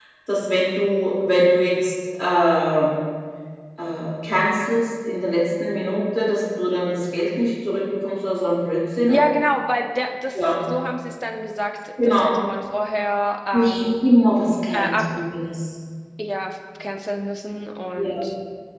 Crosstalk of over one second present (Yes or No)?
No